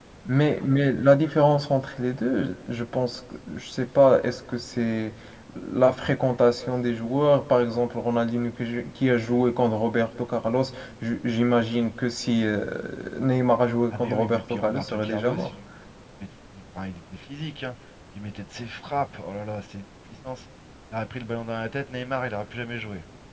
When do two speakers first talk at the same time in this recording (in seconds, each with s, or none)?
13.9 s